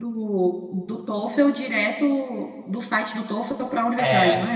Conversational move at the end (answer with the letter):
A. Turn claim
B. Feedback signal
A